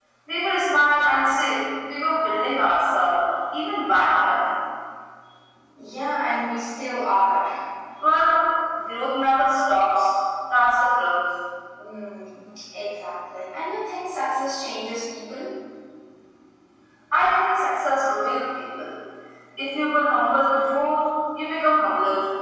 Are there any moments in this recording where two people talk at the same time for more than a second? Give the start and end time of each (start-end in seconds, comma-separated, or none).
none